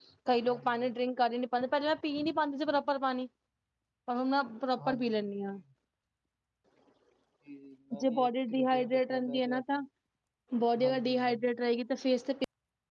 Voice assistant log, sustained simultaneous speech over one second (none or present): present